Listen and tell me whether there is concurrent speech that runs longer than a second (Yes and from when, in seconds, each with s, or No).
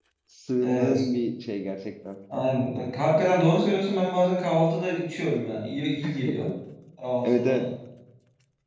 No